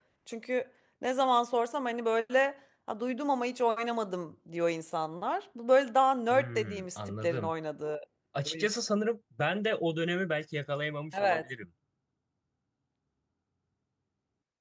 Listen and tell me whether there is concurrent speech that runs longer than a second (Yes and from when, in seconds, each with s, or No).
Yes, from 6.3 s